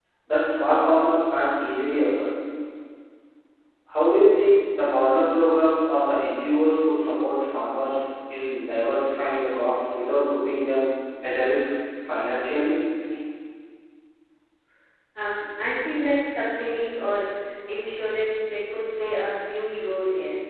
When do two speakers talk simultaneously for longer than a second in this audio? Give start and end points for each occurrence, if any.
none

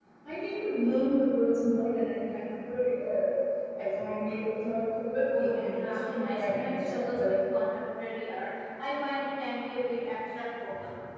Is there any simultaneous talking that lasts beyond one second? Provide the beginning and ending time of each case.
5.3-7.3

